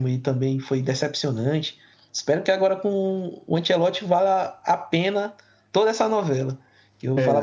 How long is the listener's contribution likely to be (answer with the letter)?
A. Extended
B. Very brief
B